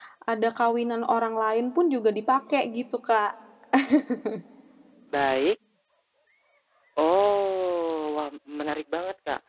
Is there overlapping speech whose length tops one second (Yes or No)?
No